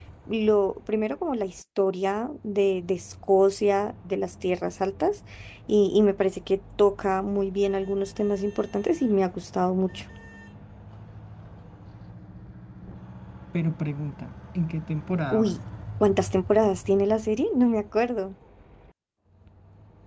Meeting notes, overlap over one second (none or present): none